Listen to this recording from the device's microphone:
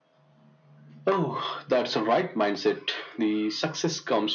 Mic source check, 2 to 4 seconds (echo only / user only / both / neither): echo only